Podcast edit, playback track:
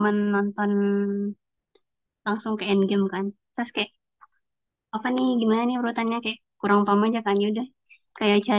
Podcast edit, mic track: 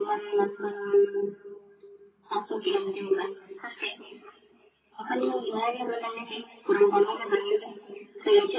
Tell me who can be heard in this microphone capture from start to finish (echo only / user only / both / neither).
echo only